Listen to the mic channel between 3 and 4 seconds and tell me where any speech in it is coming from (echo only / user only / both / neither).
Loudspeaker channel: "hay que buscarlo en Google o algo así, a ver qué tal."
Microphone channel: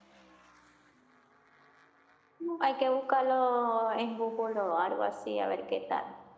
echo only